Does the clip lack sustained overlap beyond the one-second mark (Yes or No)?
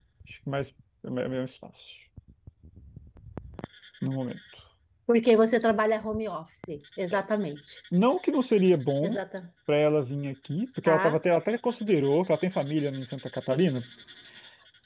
Yes